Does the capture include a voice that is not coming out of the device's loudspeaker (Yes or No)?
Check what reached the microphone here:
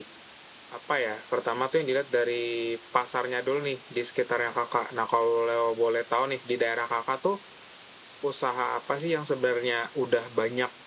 No